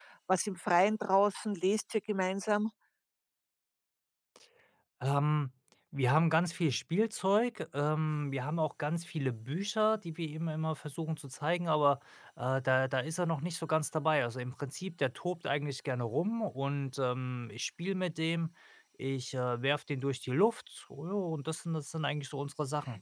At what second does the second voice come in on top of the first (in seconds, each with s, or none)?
none